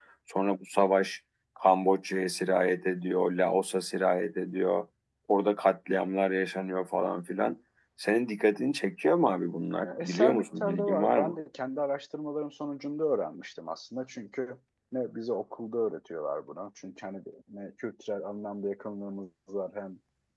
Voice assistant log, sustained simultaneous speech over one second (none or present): present